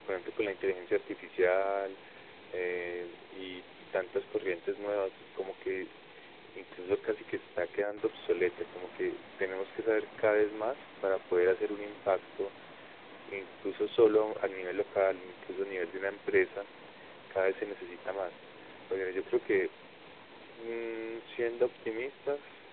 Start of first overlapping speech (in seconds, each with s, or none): none